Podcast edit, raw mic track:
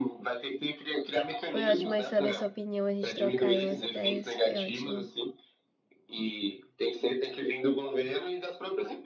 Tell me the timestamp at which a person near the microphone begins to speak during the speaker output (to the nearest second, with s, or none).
1 s